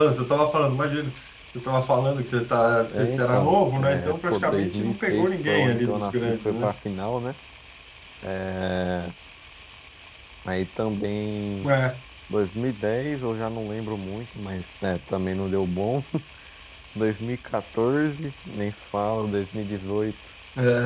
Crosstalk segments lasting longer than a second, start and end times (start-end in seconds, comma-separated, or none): 2.9-6.7